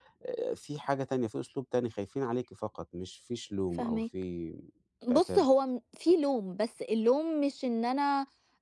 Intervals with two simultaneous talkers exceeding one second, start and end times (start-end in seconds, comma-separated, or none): none